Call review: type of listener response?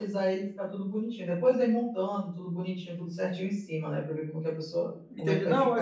taking over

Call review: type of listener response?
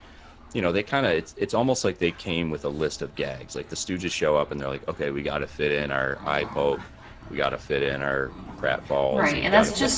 taking over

